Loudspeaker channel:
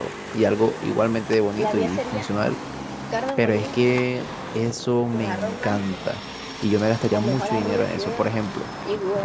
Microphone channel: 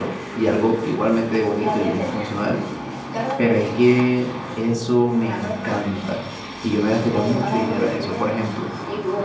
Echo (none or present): present